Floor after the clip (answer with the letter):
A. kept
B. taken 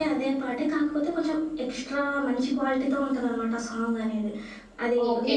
B